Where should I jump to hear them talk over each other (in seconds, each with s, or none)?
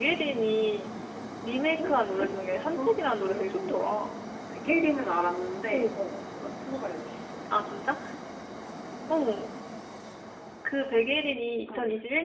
1.8 s